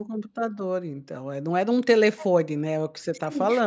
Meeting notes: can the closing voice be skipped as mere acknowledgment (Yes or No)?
No